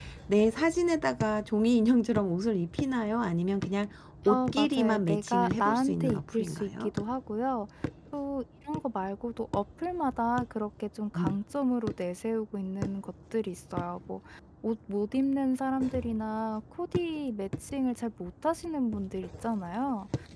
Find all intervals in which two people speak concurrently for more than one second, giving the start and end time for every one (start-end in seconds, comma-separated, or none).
4.3-6.9